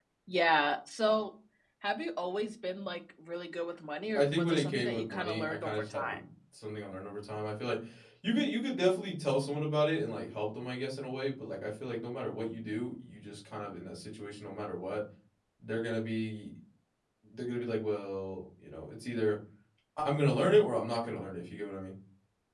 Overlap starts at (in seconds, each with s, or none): 4.2 s